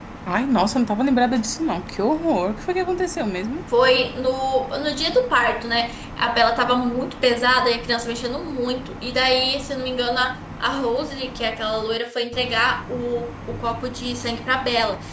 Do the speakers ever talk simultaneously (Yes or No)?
No